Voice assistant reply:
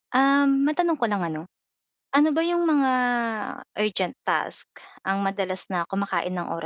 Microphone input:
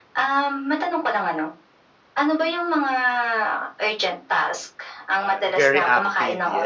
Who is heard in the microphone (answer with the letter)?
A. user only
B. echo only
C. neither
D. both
D